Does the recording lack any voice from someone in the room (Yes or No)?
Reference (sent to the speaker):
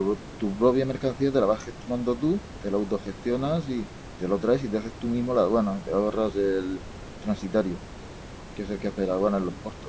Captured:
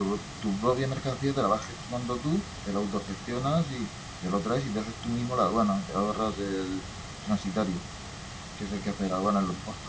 Yes